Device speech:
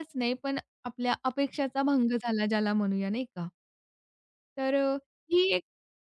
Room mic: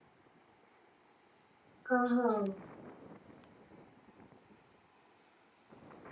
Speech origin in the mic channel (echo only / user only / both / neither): user only